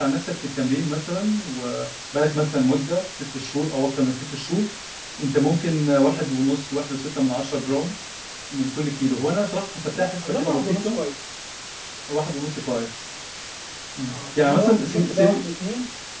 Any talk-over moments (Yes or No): Yes